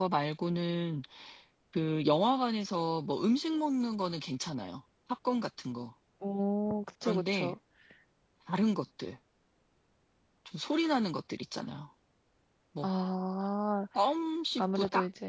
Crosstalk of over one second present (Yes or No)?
No